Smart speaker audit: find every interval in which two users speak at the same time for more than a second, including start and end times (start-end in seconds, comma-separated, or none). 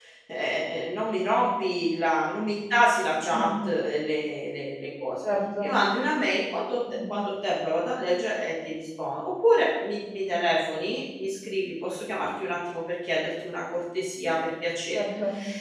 none